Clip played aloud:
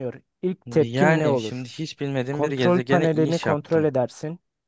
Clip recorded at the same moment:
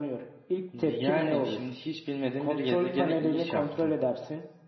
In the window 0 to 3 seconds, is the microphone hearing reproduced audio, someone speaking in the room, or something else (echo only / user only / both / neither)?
echo only